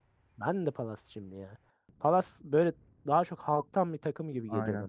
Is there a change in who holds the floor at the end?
Yes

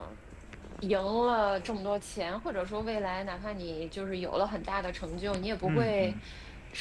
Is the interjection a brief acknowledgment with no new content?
Yes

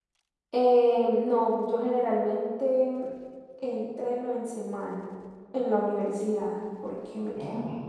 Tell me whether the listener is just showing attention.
Yes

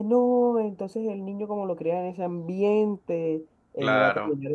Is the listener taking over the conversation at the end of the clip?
No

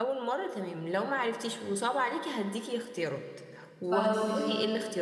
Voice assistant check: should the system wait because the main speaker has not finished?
Yes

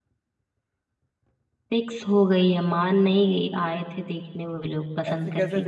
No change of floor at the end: No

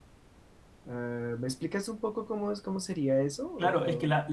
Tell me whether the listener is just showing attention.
No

